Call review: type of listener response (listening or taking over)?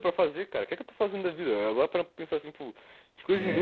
listening